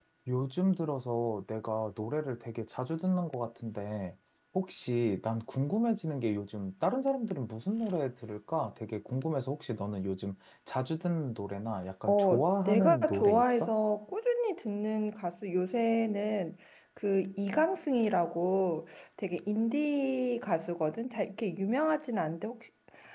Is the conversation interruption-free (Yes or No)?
No